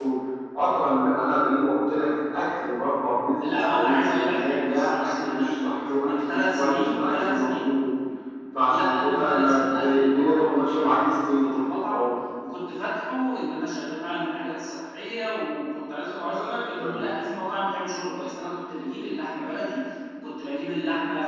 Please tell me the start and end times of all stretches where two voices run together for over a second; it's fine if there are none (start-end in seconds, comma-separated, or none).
3.6-7.7, 8.7-12.1